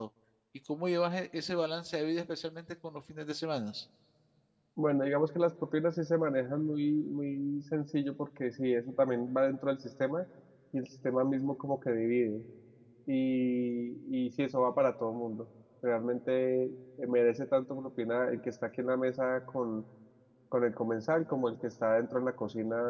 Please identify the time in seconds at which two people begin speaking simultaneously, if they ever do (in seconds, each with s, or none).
none